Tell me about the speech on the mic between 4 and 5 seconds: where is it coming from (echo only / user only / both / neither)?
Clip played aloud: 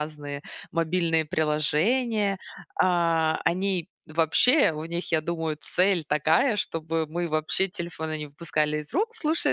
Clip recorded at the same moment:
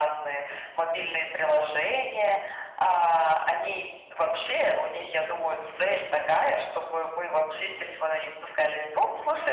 echo only